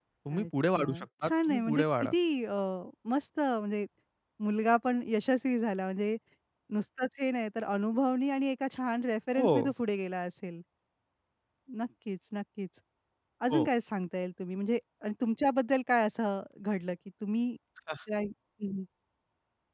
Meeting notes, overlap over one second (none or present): present